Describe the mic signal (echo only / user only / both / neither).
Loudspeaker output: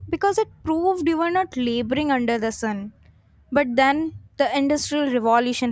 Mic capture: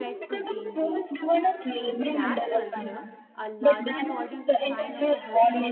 both